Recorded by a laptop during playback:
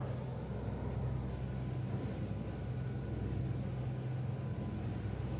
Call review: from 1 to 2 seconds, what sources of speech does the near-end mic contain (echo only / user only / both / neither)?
neither